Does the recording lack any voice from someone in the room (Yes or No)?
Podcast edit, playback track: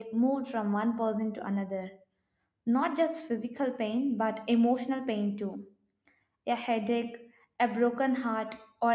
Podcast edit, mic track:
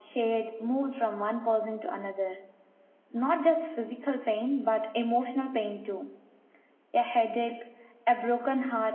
Yes